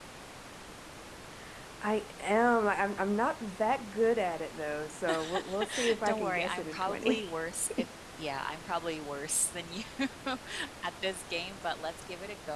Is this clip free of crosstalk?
No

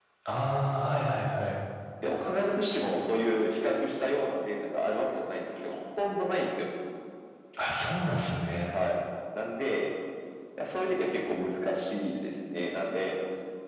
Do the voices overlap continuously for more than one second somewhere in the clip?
No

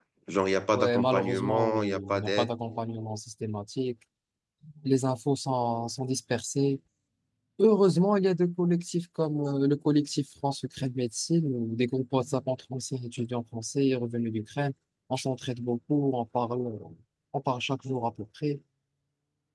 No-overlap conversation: No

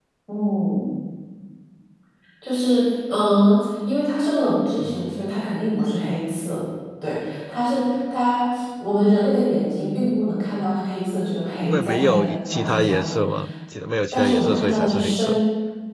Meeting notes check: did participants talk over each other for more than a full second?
Yes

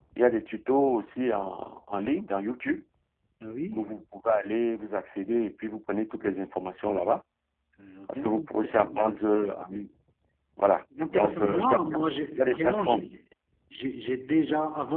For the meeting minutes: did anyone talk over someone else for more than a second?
Yes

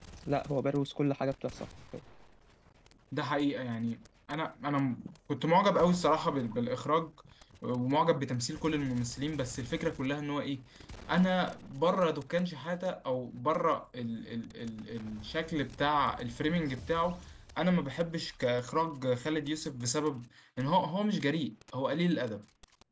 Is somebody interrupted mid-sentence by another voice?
No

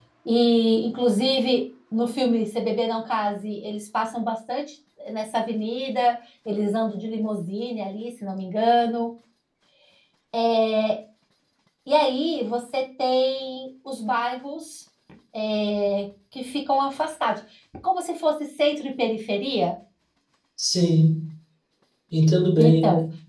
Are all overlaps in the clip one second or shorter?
Yes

